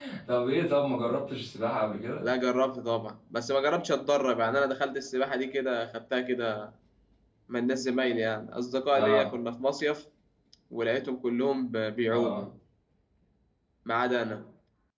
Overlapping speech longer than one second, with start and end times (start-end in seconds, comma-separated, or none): none